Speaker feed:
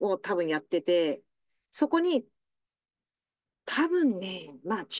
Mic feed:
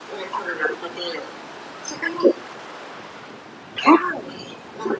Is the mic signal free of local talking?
Yes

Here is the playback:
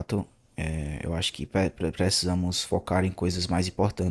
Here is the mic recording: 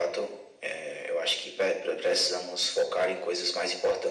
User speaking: No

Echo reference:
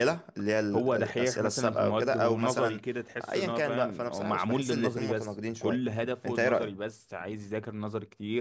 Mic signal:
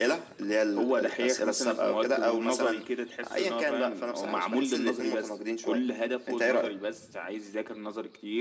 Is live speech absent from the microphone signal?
Yes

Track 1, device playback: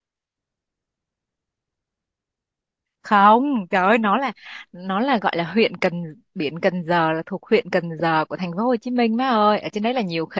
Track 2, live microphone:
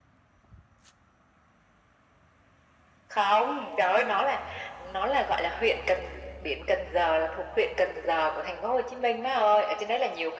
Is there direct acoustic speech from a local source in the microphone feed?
No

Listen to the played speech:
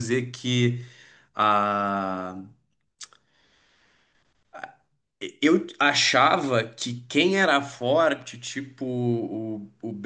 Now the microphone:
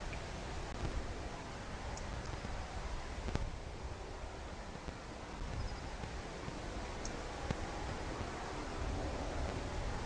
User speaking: No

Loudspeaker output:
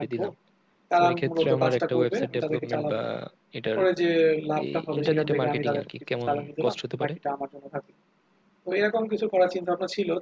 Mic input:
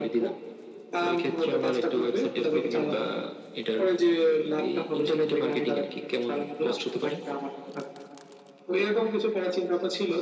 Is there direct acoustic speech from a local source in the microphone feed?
No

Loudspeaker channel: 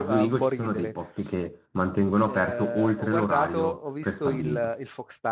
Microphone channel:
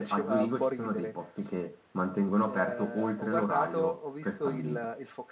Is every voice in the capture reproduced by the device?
Yes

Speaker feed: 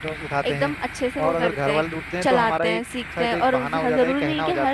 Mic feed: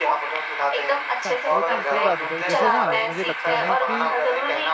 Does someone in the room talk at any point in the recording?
Yes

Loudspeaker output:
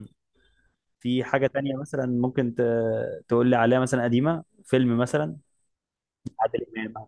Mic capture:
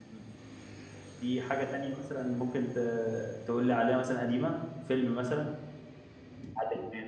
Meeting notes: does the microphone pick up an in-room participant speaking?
No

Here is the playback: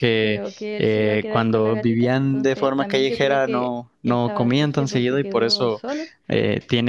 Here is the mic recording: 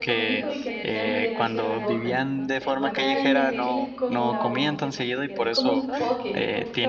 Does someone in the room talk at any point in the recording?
Yes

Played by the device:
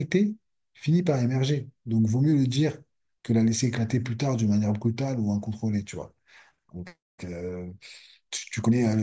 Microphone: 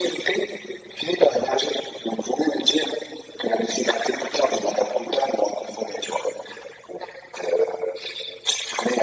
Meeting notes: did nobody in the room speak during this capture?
Yes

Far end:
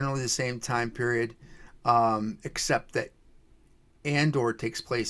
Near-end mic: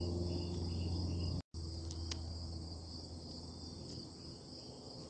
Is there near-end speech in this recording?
No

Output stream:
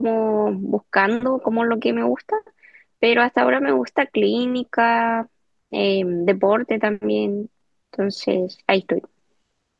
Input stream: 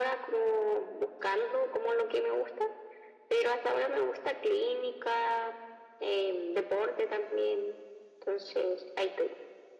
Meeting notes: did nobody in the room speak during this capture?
Yes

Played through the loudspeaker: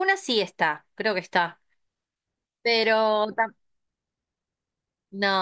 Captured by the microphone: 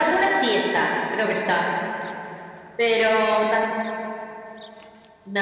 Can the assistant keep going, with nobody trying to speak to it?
Yes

